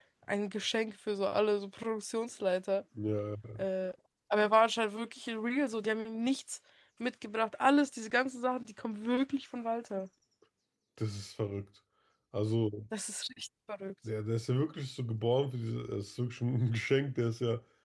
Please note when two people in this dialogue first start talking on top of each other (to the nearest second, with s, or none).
none